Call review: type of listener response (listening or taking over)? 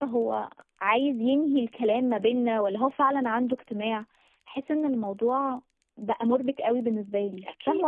taking over